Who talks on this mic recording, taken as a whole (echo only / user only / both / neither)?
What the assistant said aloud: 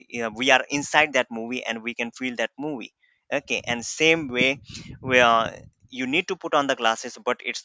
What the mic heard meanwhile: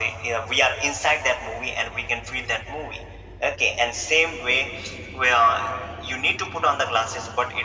echo only